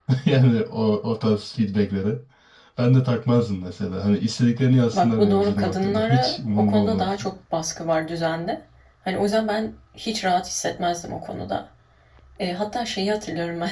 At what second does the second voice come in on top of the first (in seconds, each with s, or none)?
4.9 s